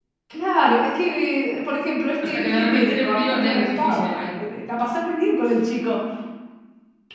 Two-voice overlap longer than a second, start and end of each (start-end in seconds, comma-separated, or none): 2.1-4.3